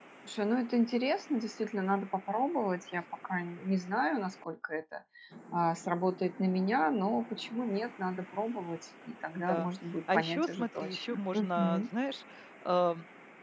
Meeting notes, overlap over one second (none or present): present